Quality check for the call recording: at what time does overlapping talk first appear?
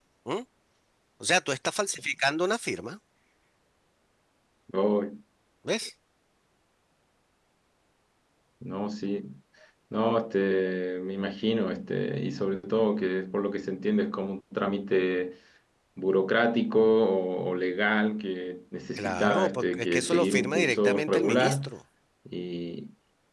19.0 s

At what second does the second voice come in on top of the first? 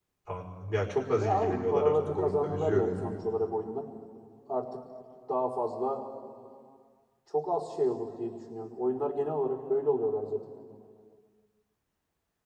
1.2 s

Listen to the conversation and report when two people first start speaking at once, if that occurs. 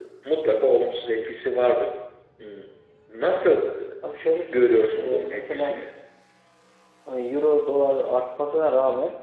4.2 s

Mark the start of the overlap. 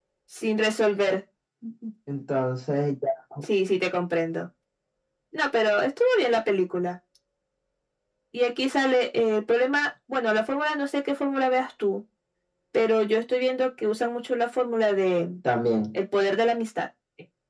none

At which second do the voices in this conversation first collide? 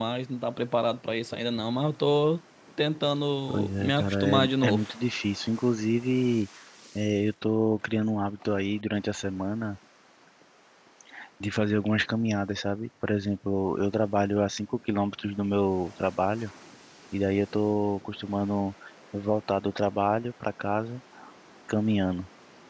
3.5 s

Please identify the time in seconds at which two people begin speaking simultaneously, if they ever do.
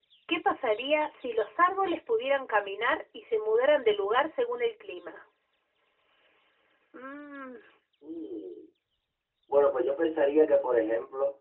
none

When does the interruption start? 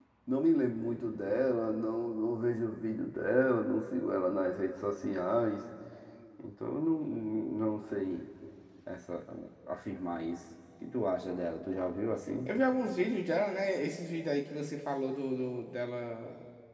none

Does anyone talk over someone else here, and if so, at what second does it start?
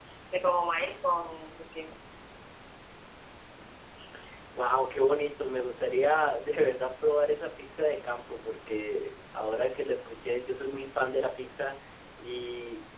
none

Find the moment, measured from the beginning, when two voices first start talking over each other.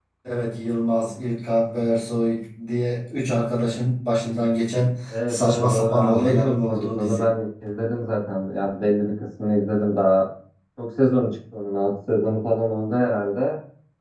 5.1 s

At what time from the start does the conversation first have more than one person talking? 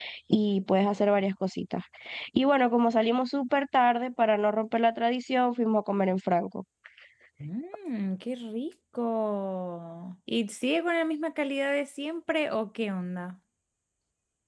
none

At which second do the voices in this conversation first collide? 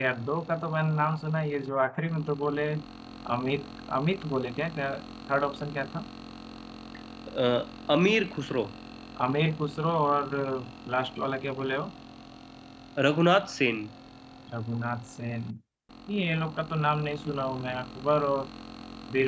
none

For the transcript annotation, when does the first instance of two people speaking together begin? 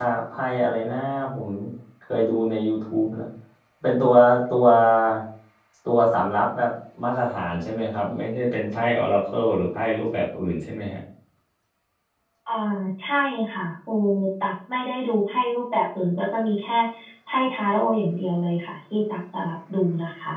none

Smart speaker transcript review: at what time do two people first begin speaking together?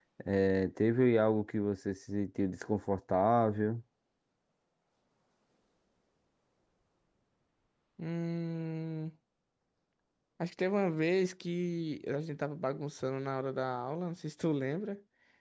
none

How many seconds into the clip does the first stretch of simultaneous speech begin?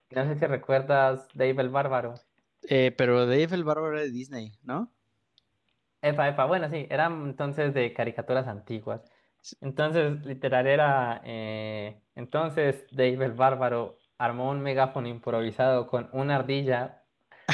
none

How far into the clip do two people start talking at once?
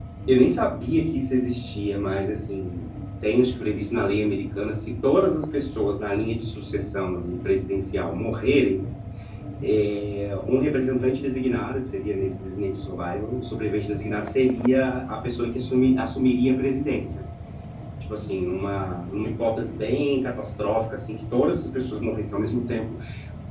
none

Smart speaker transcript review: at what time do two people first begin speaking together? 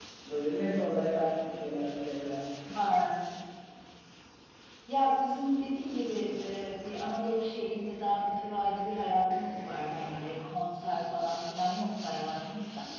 none

